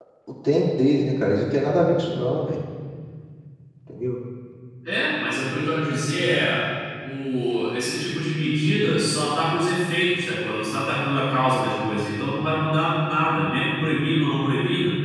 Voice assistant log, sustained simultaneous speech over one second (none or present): none